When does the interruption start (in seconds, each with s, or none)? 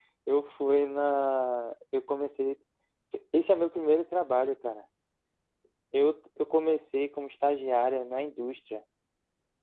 none